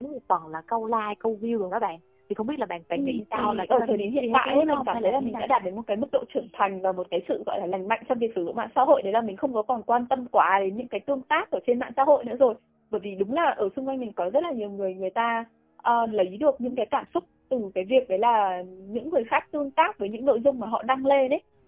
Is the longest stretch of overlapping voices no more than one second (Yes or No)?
No